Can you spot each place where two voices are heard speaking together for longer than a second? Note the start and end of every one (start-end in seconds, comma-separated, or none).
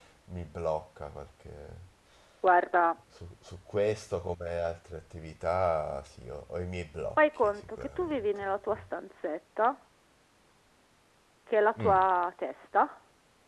7.2-8.7